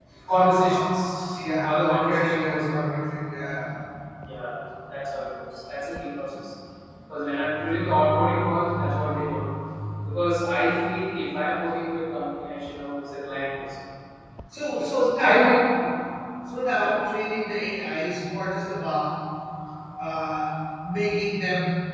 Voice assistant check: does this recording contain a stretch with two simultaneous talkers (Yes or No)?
Yes